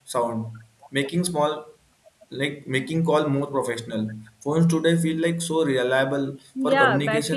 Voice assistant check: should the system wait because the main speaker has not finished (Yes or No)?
No